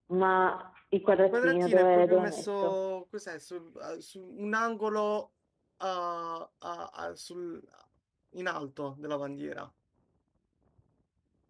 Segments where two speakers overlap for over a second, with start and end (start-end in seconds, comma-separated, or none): 1.3-2.8